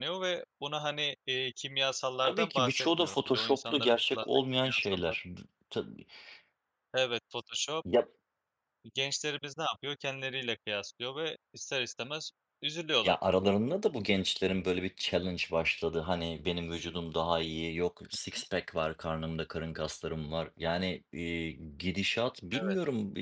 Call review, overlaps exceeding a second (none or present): present